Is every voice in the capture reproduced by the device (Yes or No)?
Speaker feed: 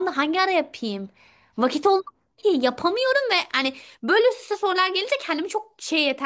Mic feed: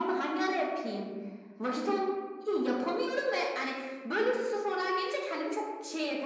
Yes